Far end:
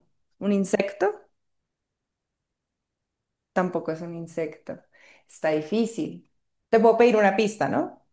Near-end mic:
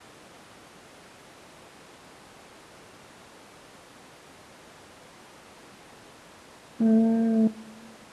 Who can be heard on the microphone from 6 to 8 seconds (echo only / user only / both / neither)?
user only